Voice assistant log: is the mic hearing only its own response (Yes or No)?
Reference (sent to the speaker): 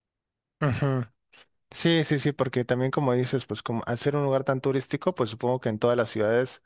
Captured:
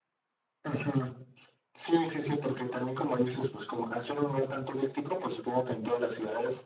Yes